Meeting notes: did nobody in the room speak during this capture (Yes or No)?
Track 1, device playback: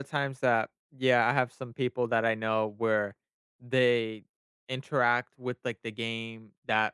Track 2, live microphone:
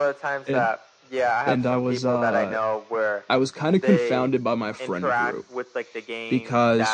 No